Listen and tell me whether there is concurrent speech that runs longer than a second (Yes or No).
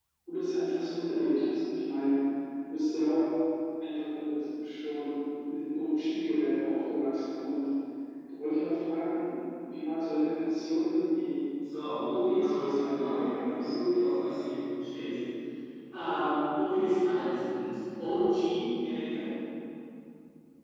Yes